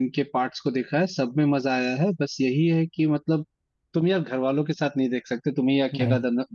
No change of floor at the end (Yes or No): Yes